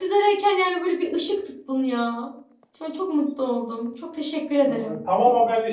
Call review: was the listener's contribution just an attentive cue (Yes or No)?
No